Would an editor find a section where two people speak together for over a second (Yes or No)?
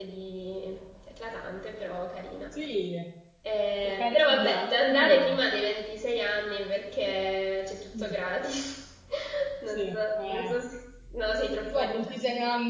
Yes